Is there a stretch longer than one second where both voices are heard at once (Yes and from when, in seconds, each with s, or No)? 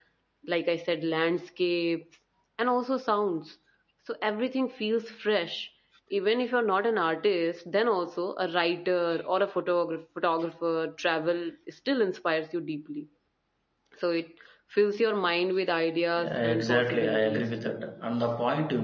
Yes, from 16.2 s